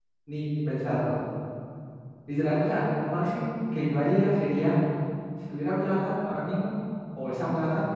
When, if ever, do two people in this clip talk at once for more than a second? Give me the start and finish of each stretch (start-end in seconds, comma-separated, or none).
none